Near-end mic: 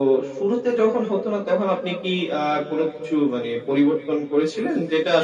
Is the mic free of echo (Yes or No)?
No